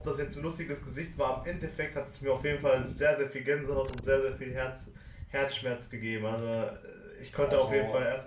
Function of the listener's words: listening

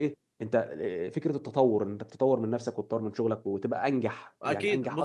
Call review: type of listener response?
taking over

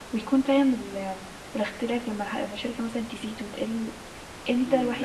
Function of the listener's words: taking over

